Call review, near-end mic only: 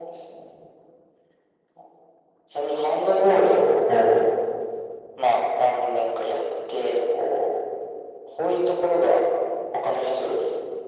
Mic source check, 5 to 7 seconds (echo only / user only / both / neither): echo only